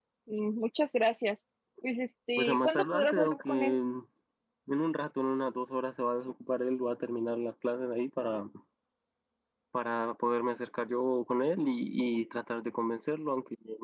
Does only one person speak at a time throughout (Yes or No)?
No